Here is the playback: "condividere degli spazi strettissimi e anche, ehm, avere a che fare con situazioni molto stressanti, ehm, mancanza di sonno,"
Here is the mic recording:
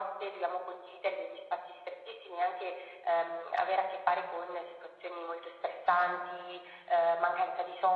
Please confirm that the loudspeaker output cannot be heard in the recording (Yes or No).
No